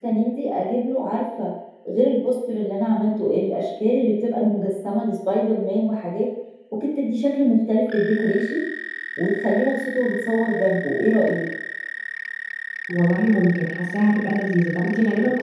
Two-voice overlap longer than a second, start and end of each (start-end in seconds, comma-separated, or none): none